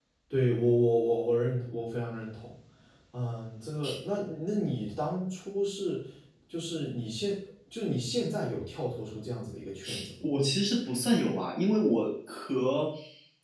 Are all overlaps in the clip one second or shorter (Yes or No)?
Yes